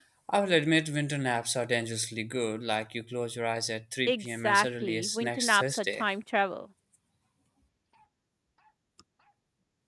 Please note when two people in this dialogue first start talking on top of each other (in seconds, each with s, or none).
4.1 s